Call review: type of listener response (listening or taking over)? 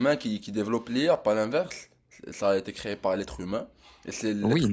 taking over